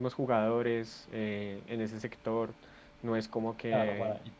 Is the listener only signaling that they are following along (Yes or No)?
No